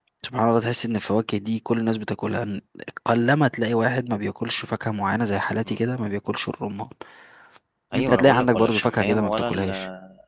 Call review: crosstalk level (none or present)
present